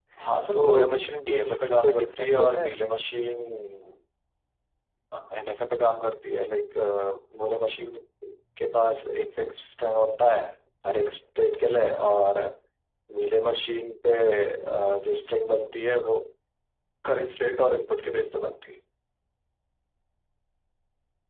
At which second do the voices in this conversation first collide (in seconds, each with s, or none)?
0.5 s